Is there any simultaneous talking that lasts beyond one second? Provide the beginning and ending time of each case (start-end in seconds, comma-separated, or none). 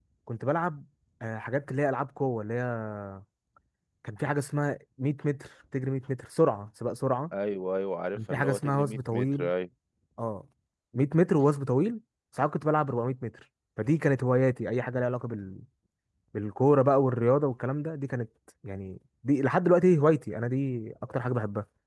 8.2-9.5